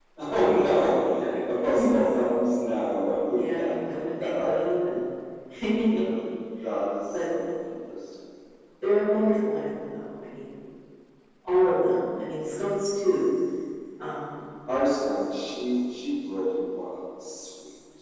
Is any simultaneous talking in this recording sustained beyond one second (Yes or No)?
Yes